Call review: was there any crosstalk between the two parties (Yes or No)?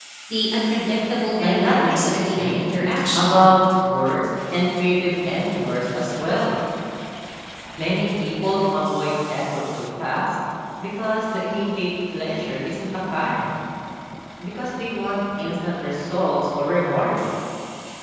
Yes